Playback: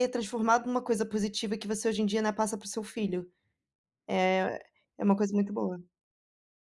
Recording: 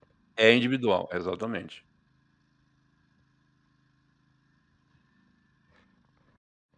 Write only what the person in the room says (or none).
É individual, exatamente.